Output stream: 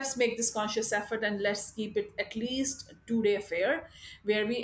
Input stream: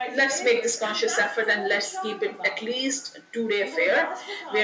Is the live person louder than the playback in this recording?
No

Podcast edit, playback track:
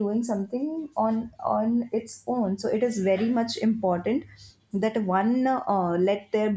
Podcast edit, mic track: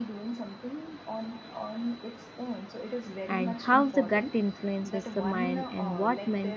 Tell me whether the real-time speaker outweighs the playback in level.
Yes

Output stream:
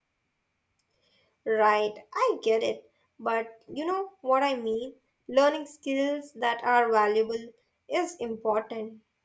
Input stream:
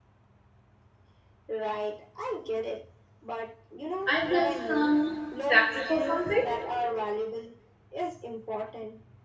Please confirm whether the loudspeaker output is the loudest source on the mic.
No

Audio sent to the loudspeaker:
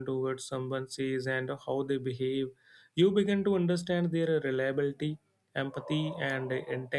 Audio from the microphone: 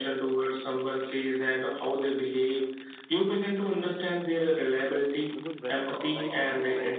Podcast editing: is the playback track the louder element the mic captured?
Yes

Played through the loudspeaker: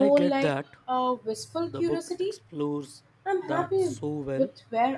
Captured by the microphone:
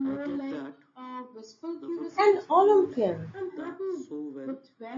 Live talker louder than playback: Yes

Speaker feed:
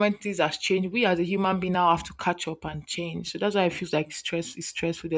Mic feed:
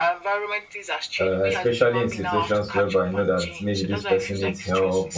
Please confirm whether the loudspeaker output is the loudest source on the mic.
No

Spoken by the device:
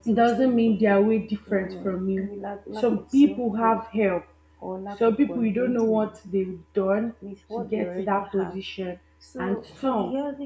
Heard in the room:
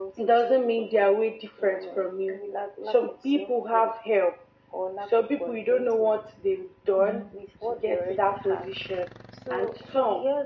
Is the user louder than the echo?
No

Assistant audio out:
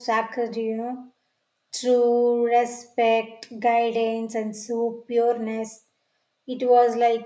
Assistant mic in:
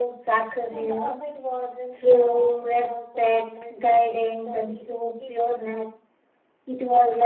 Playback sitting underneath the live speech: No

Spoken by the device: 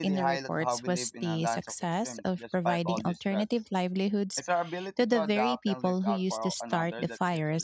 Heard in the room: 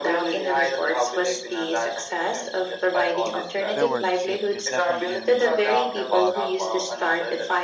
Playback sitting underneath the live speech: No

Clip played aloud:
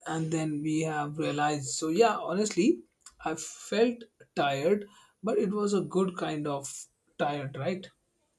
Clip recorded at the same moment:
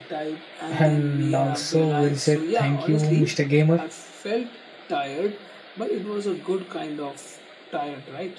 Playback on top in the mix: No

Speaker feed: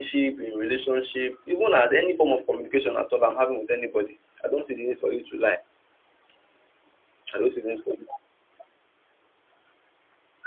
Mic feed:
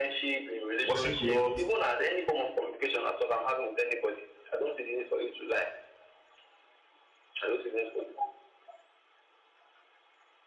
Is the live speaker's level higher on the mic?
Yes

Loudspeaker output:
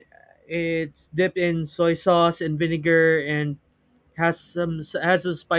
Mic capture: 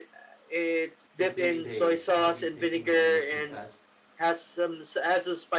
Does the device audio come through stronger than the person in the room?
Yes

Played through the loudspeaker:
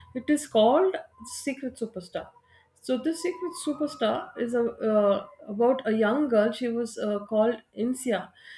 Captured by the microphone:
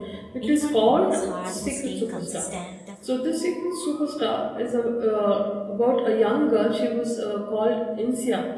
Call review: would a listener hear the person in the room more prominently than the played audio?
No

